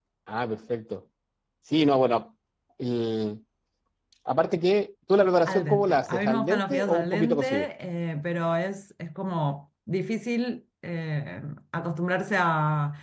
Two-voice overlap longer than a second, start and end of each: 5.5-7.5

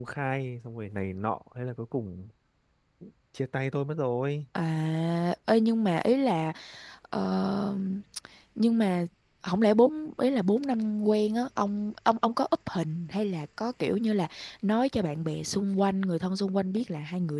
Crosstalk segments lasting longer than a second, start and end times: none

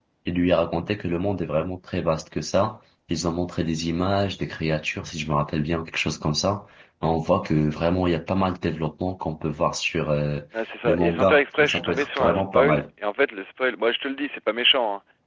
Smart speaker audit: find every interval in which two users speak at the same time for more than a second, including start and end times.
10.8-12.8

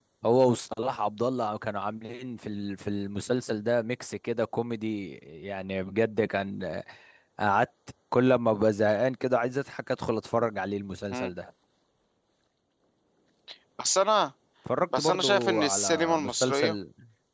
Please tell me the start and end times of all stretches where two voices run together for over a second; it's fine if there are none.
14.9-16.8

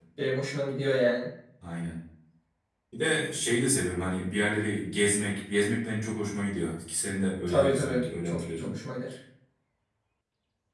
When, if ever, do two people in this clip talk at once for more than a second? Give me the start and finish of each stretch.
7.5-8.7

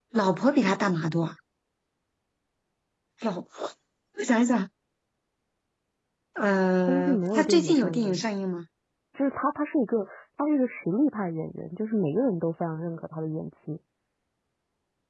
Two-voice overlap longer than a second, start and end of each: 6.9-8.2

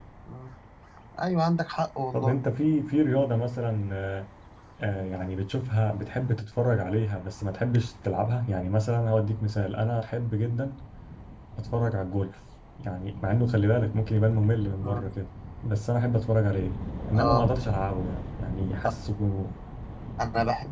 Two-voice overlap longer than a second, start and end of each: none

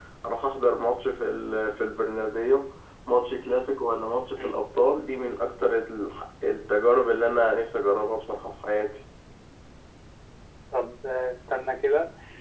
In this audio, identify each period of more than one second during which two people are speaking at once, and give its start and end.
none

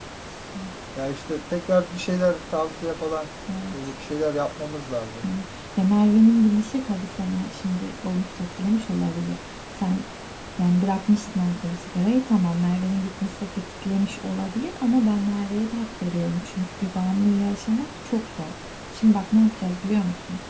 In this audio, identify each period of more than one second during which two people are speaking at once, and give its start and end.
none

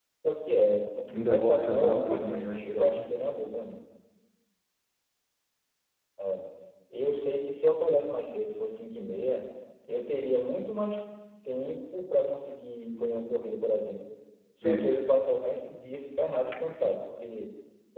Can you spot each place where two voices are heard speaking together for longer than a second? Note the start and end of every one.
1.3-3.0

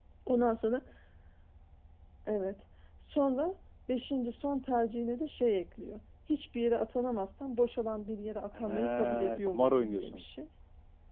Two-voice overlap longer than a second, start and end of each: 8.5-10.2

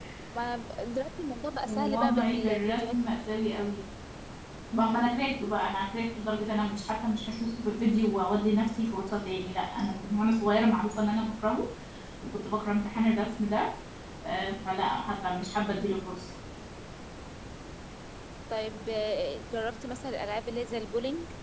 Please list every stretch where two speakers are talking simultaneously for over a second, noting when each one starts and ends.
1.7-2.9

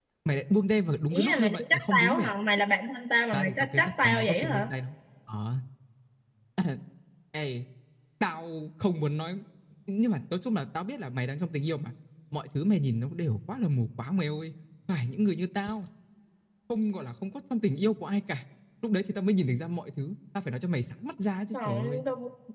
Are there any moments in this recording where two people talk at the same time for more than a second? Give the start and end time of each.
1.1-2.3, 3.3-4.7

